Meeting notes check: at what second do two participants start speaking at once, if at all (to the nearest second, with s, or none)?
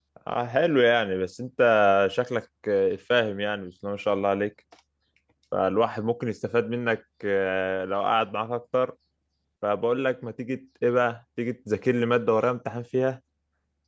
none